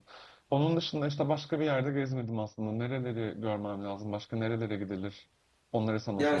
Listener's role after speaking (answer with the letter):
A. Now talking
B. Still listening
A